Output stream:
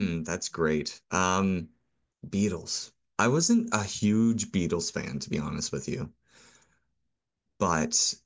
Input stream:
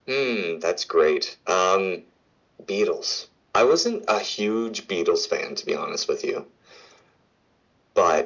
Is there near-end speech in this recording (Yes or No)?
No